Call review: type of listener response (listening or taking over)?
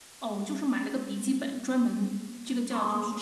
listening